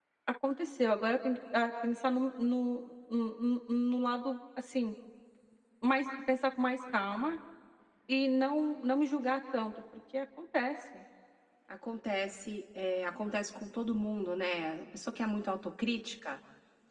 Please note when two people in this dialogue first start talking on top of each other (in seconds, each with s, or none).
none